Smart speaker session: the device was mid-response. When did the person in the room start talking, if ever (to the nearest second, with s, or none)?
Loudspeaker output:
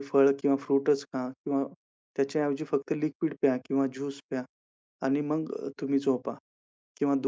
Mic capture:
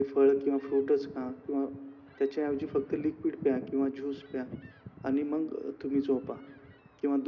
none